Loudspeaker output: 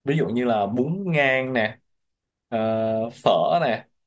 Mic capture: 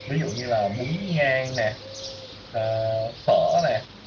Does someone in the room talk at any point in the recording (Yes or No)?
No